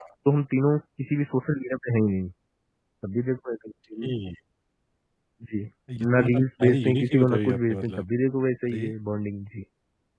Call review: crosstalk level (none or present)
present